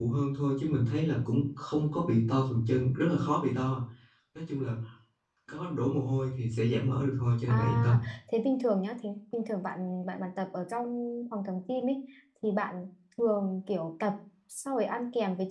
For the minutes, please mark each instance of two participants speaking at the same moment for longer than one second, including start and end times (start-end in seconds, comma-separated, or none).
none